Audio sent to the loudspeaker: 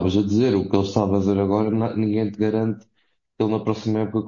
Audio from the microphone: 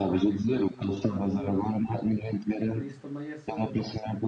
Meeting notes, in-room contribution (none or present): present